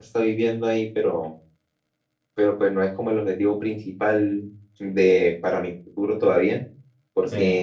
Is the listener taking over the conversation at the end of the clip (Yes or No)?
No